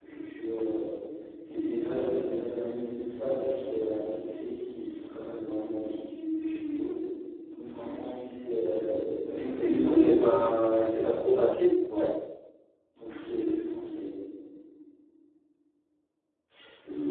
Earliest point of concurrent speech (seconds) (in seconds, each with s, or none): 9.6 s